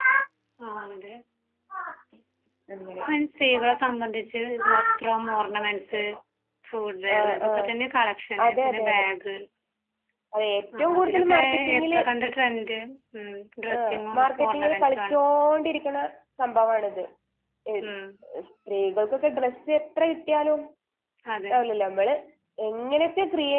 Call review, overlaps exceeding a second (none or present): present